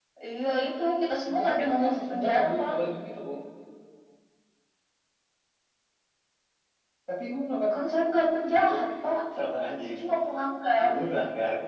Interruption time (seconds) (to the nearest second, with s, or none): 1 s